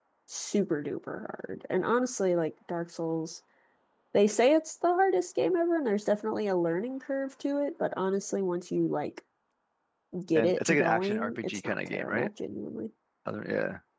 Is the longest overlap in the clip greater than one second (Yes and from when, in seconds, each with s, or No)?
Yes, from 10.4 s